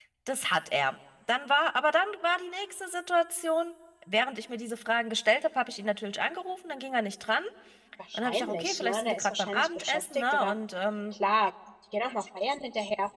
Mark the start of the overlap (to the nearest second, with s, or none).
8 s